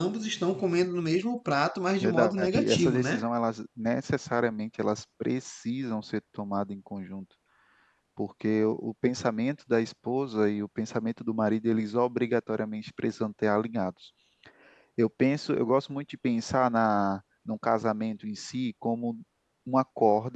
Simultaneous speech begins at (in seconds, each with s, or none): 2.0 s